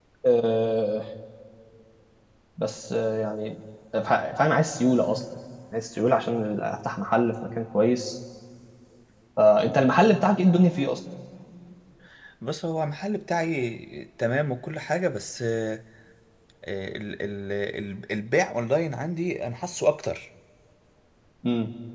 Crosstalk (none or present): none